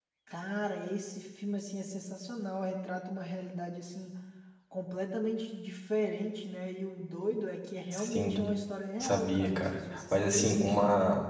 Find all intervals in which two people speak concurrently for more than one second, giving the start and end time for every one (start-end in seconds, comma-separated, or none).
9.0-10.8